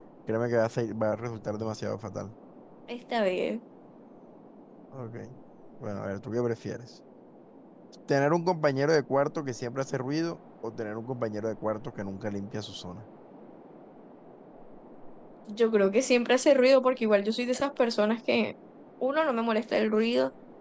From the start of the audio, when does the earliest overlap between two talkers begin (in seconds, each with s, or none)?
none